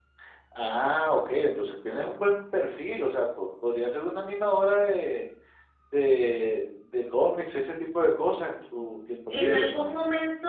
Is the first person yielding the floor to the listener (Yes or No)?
Yes